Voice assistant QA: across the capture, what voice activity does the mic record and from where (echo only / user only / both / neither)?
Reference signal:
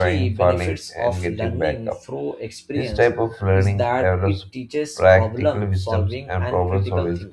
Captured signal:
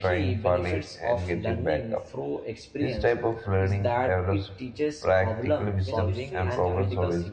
both